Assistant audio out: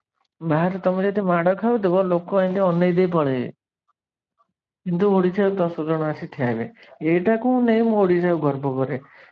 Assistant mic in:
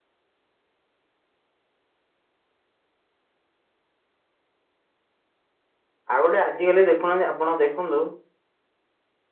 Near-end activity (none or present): present